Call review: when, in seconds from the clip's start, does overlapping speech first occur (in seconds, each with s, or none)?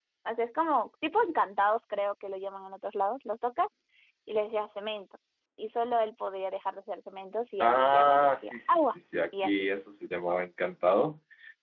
7.6 s